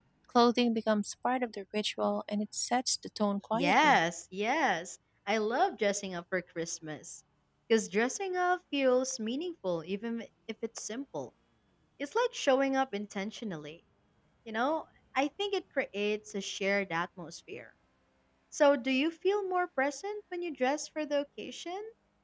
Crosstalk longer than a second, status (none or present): none